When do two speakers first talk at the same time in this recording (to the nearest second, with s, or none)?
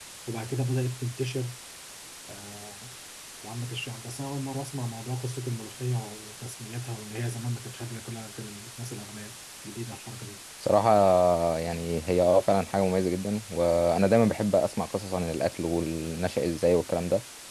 none